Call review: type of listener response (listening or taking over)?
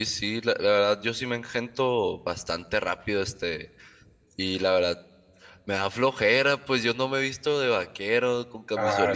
listening